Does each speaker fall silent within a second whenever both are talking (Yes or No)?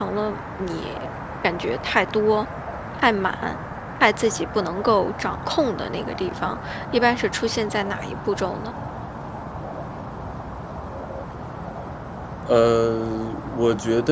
Yes